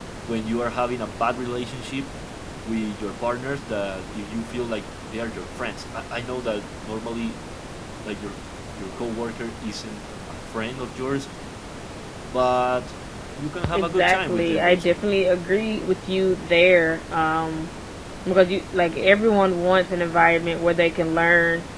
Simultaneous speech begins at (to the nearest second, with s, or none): 14 s